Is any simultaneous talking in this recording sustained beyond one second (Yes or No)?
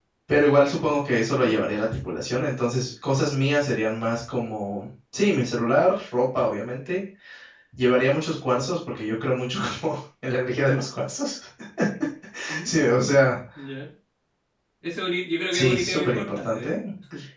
Yes